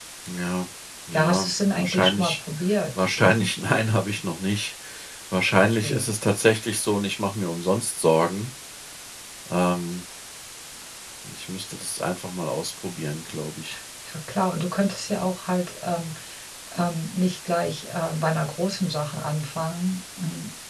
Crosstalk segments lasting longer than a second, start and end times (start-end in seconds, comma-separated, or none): 1.1-2.3